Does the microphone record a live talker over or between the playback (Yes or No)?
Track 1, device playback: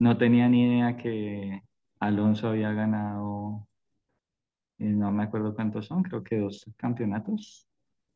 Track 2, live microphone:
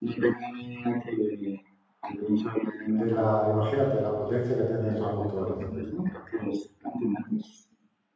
Yes